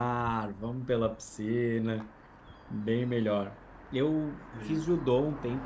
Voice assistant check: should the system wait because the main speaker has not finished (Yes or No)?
Yes